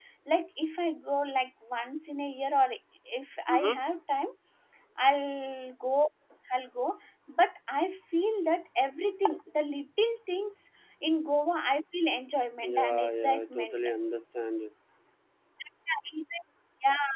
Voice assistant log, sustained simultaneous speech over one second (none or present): present